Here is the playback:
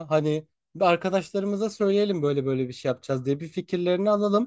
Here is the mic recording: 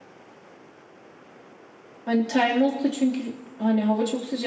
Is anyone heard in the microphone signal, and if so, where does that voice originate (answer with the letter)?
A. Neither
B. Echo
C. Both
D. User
D